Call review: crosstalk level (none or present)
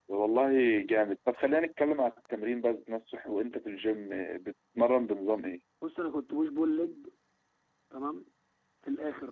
none